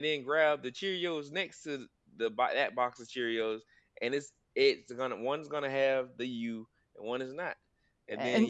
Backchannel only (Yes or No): No